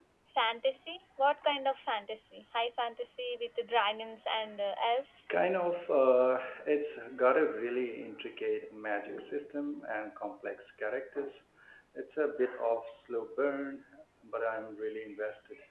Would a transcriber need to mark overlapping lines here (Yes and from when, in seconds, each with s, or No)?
No